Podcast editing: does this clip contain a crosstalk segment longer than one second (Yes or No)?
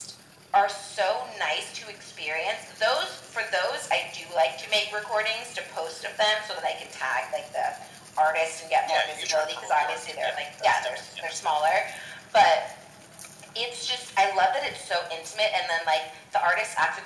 Yes